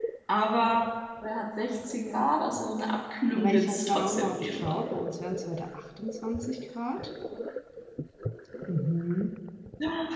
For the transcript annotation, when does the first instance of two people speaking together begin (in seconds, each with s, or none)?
3.4 s